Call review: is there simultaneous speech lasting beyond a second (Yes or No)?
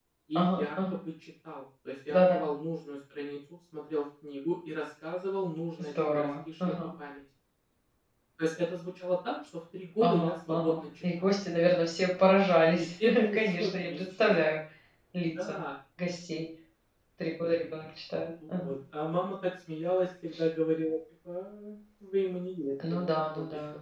Yes